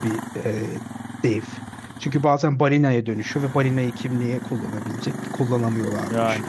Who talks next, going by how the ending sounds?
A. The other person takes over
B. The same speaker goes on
B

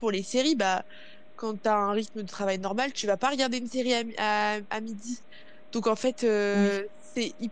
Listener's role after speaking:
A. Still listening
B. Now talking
A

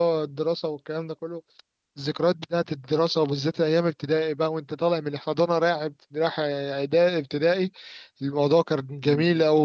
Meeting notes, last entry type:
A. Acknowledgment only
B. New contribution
A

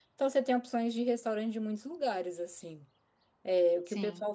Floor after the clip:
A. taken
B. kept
B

